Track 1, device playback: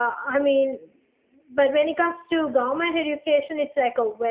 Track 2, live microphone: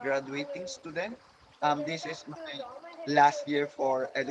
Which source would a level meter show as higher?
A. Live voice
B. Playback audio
A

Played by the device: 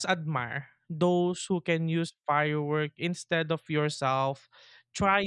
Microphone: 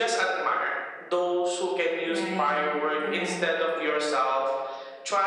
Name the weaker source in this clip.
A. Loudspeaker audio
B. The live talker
B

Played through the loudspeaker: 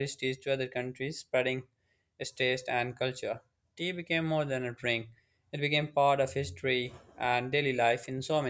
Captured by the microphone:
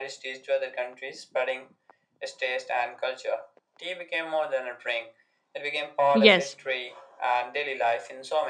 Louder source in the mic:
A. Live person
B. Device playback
A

